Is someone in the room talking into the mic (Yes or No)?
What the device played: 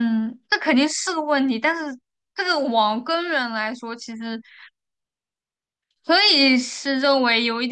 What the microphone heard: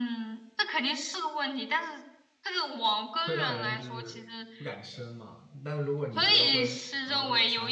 Yes